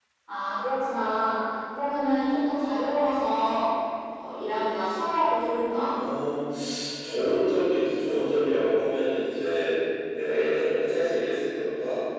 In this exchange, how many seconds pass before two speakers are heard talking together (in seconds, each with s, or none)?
none